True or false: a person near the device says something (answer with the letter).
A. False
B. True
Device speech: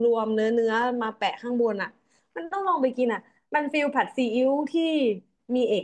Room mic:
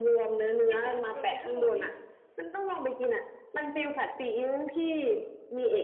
B